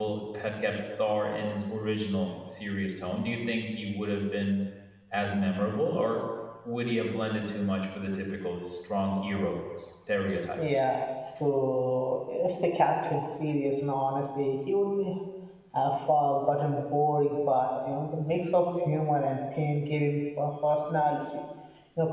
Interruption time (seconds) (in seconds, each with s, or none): none